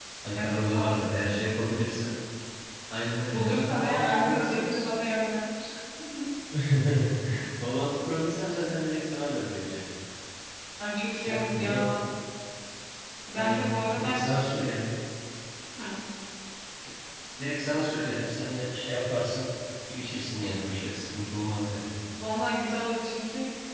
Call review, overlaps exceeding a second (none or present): present